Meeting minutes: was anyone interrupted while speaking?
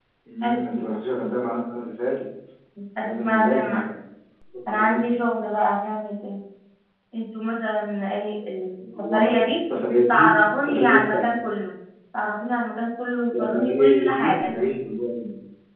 Yes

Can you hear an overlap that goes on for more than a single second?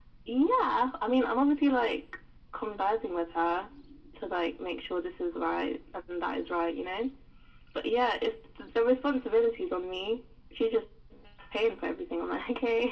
No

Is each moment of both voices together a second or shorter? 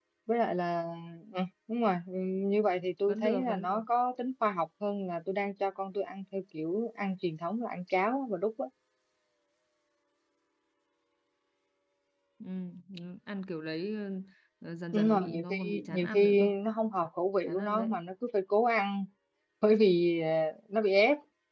No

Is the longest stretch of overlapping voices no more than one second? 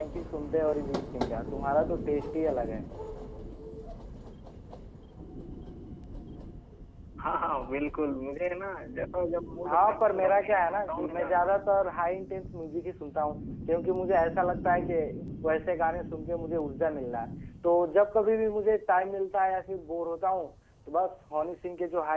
No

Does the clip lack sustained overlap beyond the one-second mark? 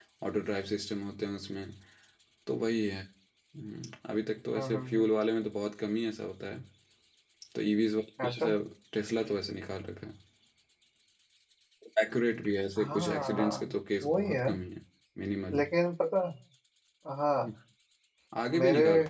No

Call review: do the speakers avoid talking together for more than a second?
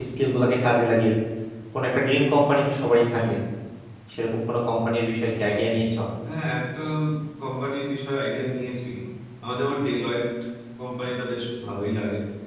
Yes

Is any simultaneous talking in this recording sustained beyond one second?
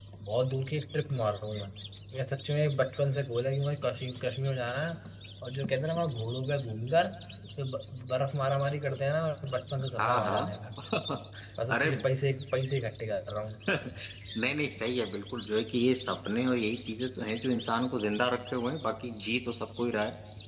No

